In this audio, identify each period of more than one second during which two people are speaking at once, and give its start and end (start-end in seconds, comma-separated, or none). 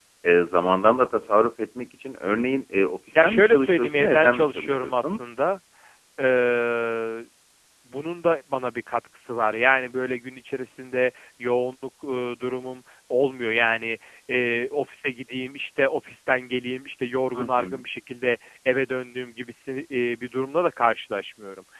3.1-5.2